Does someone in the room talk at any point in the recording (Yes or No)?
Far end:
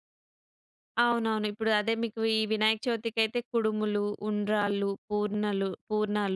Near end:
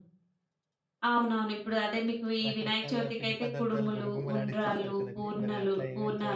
Yes